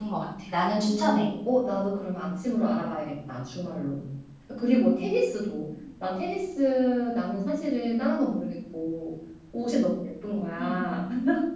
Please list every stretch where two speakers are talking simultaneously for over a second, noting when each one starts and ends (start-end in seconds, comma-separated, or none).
none